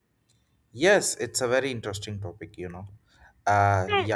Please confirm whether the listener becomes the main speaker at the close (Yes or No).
No